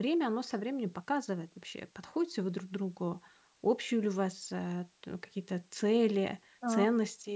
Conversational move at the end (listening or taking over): listening